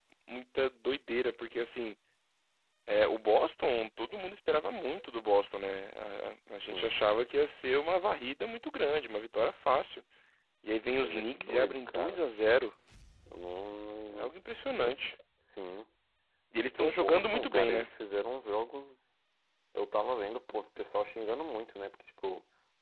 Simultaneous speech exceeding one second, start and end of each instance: 10.9-12.2, 16.6-17.9

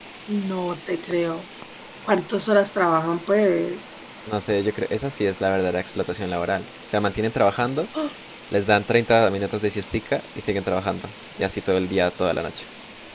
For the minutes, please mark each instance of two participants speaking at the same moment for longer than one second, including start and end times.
none

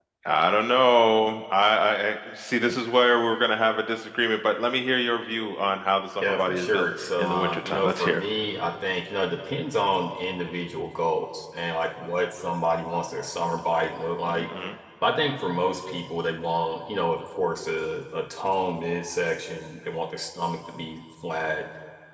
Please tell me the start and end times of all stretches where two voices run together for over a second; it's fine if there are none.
6.2-8.2

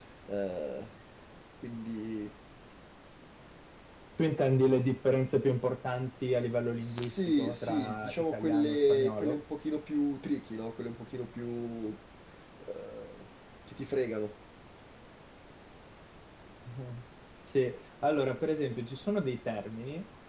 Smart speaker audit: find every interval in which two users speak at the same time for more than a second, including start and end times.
6.8-9.4

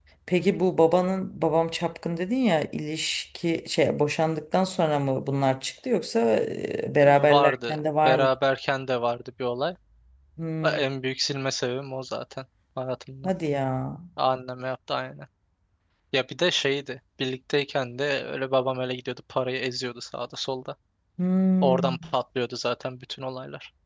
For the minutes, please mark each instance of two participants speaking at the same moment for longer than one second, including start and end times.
7.0-8.3

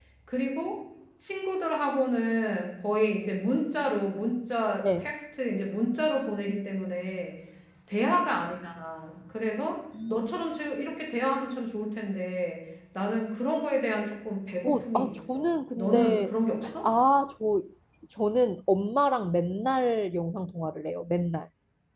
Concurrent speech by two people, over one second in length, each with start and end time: 14.7-16.3

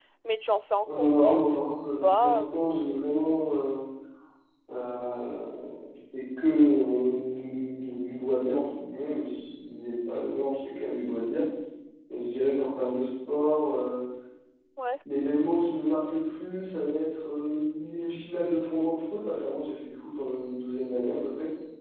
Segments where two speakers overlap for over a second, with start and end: 0.8-2.7

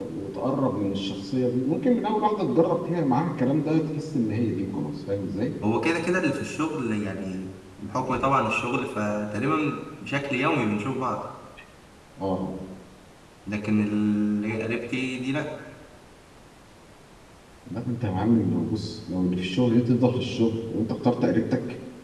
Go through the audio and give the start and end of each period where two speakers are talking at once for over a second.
none

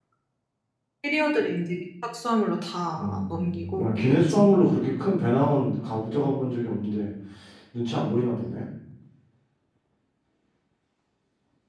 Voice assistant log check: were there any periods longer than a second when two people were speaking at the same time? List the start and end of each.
3.0-4.5

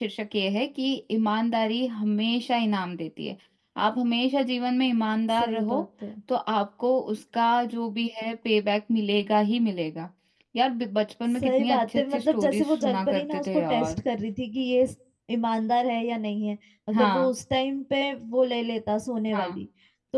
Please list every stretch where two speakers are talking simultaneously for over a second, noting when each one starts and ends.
11.3-14.0

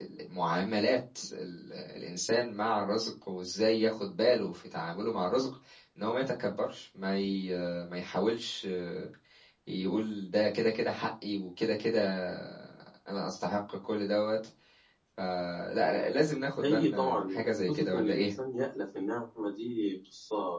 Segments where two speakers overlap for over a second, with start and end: 16.6-18.4

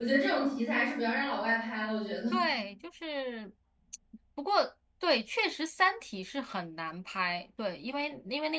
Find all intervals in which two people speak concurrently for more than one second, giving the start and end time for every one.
none

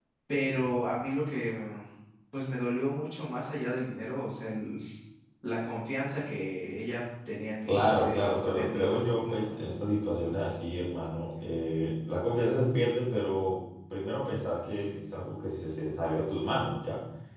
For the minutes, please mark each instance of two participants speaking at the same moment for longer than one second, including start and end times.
7.6-9.8

